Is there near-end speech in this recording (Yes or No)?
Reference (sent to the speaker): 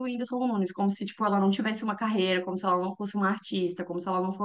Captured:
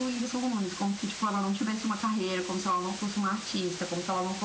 No